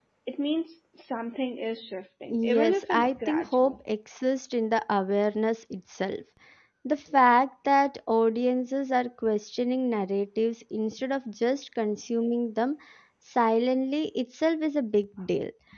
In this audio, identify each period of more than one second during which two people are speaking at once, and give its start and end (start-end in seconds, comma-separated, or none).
2.3-3.8